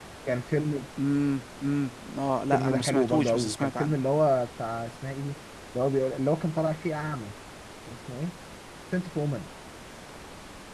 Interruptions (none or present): present